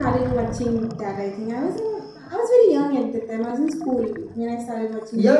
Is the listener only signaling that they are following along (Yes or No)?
No